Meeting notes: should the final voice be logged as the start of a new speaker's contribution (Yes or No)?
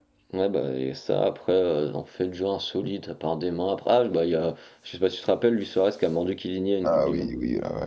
Yes